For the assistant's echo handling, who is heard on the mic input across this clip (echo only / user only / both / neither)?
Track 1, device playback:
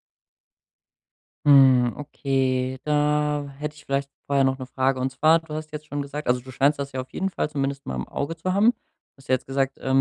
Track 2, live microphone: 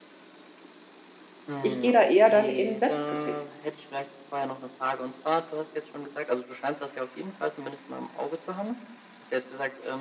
both